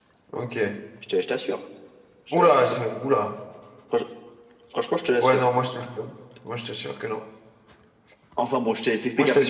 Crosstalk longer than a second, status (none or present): none